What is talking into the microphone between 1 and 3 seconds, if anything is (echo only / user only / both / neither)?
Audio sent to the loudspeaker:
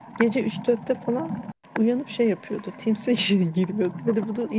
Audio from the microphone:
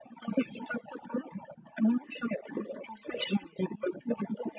echo only